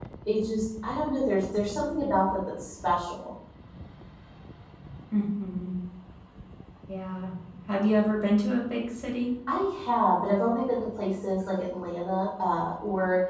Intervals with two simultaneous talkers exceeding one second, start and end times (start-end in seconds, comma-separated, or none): none